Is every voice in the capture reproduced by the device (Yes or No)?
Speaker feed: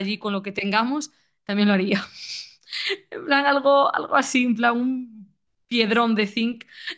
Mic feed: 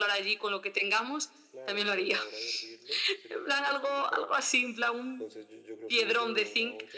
No